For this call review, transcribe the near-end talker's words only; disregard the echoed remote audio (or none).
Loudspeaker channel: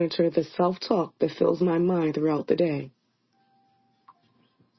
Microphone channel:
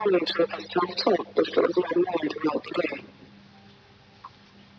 none